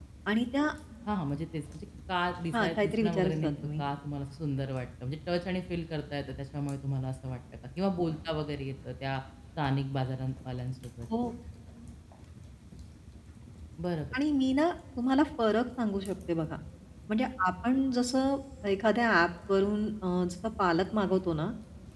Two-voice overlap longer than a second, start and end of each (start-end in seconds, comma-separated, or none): 2.5-3.8